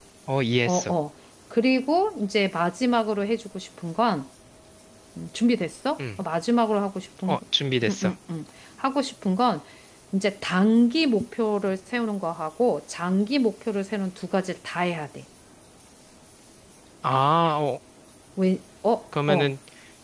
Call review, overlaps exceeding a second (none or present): none